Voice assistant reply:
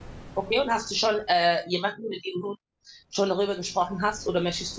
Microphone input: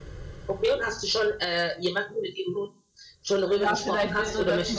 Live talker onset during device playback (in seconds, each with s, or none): 3.5 s